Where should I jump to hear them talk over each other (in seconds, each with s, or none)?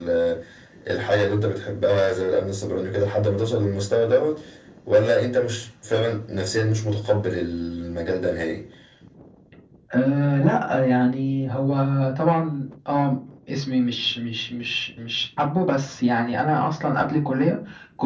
none